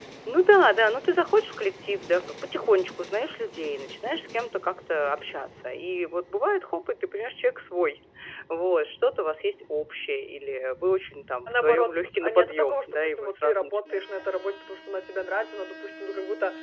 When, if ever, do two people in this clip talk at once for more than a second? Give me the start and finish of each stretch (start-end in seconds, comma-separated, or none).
11.5-14.3